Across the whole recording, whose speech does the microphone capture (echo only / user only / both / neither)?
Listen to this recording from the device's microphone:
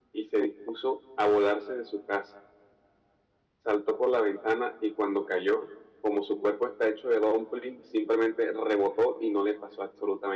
echo only